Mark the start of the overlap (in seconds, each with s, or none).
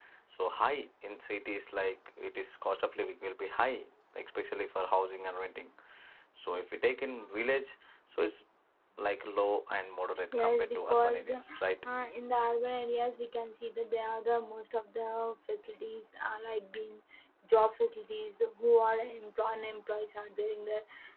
10.3 s